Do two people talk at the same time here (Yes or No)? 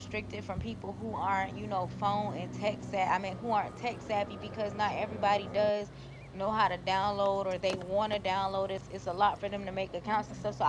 No